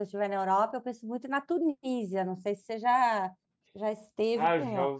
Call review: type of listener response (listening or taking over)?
taking over